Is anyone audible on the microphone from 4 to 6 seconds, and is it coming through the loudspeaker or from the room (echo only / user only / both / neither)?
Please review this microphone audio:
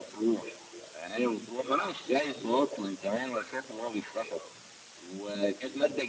echo only